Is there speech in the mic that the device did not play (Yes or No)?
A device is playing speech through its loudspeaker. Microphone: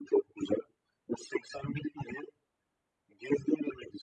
No